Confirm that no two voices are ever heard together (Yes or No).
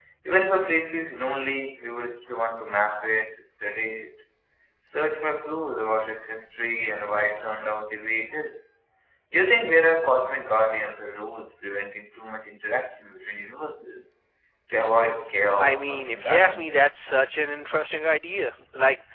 No